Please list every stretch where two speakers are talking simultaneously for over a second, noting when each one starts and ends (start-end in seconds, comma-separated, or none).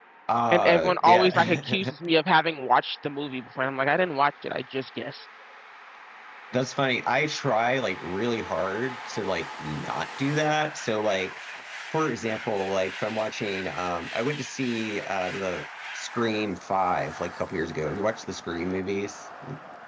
0.5-1.9